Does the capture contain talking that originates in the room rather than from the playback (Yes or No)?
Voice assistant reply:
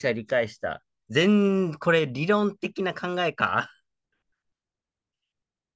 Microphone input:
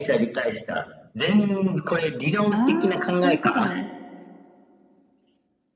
Yes